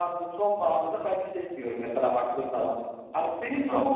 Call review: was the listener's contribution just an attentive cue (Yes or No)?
Yes